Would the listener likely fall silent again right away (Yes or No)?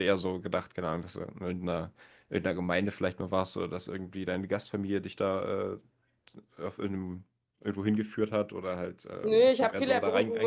No